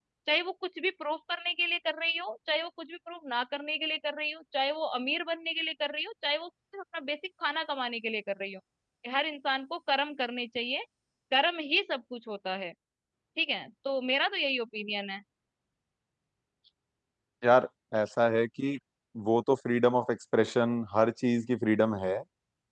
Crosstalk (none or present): none